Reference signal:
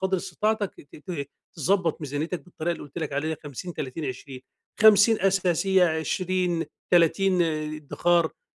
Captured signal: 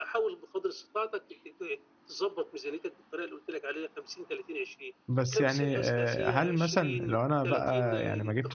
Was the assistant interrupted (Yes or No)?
Yes